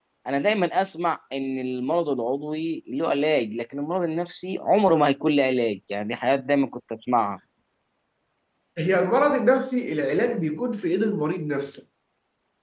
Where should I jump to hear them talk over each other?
none

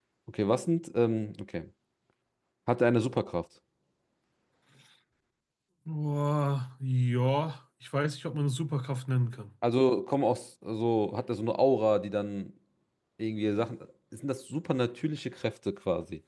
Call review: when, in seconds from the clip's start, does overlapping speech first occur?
none

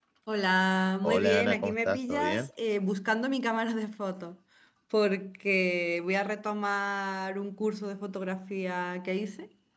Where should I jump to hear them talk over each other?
1.0 s

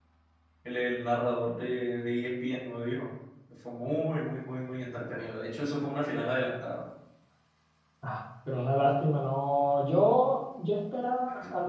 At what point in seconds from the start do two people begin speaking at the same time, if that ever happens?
none

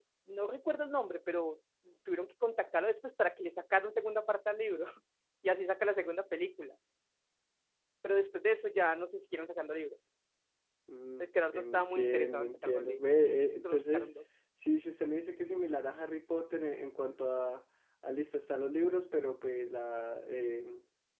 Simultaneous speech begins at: 11.2 s

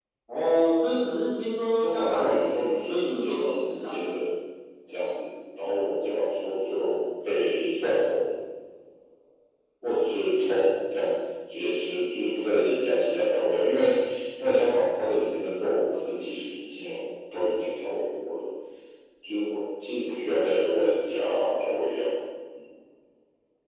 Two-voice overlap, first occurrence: 1.8 s

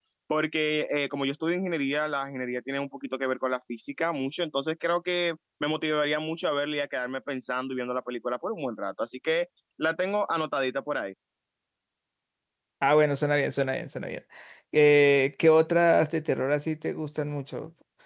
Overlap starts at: none

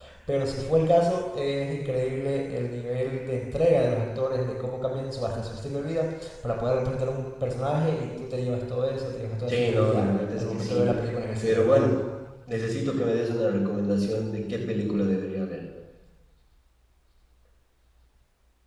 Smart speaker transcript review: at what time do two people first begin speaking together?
9.5 s

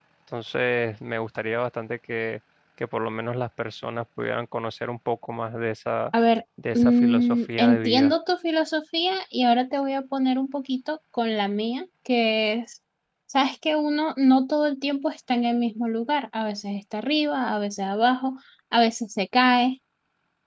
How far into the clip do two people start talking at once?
6.7 s

